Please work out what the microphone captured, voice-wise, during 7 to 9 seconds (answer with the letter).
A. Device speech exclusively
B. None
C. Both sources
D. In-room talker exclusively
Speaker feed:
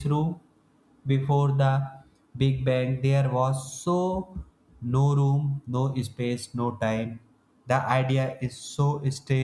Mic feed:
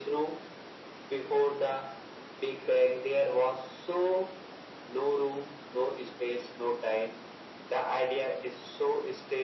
A